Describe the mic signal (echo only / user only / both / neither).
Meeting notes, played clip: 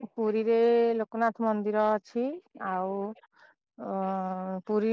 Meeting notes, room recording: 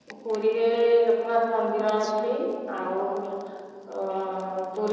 both